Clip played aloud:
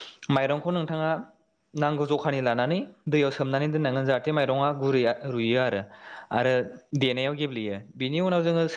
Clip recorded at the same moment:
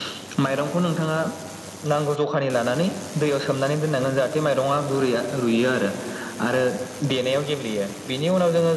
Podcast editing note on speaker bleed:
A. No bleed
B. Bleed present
B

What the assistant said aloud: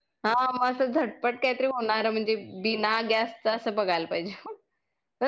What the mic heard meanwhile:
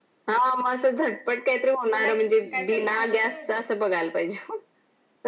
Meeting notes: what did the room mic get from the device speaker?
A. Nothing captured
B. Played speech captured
B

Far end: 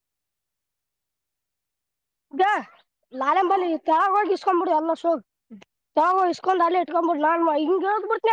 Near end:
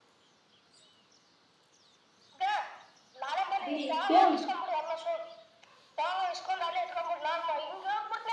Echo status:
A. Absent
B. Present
B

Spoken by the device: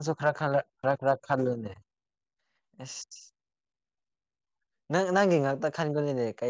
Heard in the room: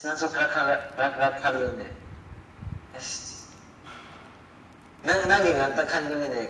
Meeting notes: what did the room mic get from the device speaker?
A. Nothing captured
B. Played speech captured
B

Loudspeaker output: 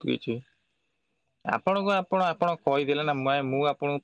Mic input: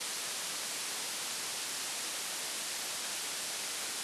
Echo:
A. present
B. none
B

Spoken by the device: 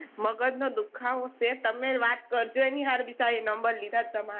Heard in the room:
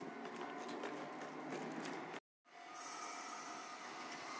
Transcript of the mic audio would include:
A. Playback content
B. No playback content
B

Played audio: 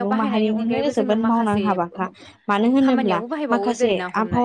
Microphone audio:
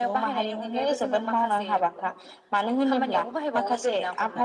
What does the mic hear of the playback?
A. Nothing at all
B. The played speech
B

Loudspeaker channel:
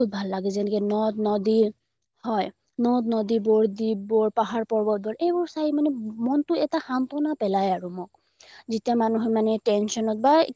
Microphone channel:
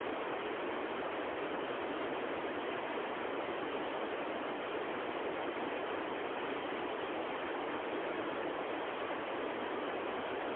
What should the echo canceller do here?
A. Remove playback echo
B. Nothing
B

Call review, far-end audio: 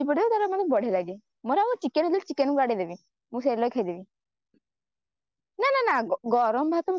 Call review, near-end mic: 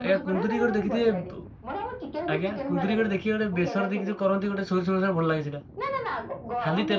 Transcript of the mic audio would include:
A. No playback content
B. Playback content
B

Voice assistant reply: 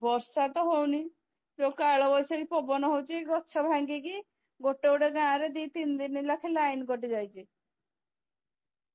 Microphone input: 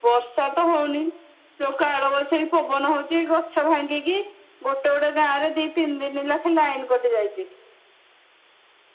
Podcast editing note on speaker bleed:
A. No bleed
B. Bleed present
B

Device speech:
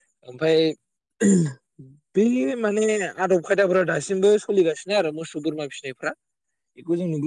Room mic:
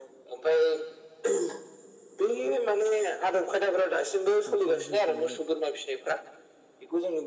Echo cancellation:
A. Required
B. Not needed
A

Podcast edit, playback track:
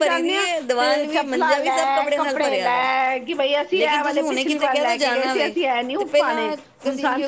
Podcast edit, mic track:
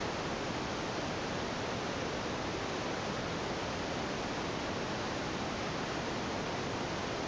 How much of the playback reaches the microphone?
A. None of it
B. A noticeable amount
A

